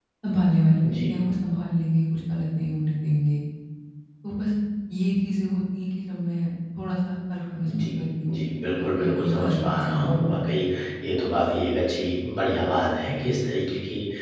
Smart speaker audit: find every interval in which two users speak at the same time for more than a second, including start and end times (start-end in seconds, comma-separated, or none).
8.9-10.2